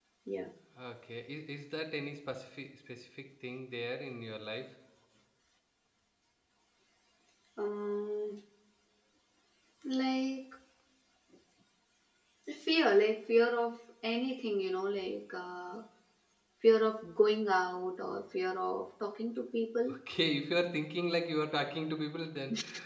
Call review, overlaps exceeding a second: none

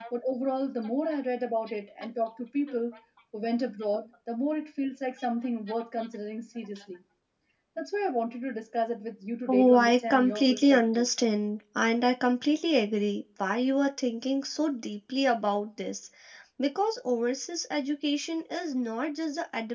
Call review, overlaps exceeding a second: present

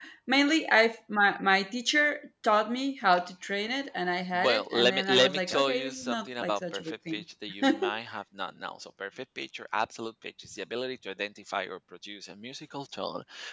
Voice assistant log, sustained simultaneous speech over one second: present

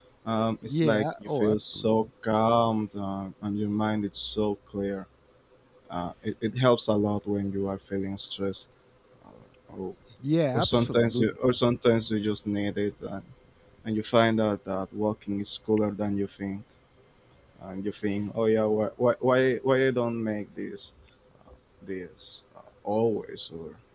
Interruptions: present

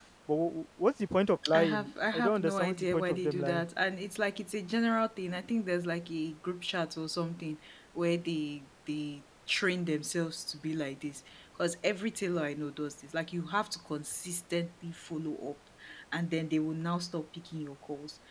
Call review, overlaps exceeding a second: present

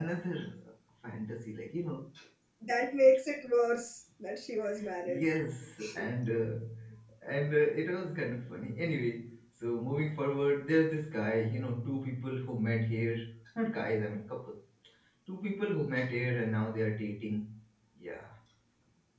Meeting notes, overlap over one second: none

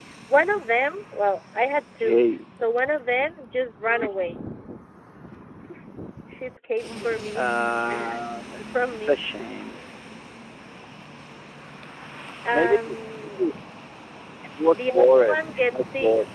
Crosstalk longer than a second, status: present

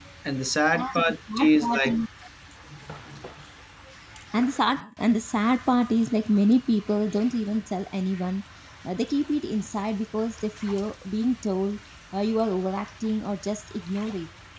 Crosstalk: present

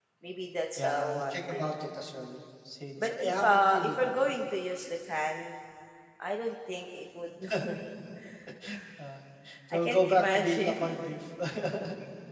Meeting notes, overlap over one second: present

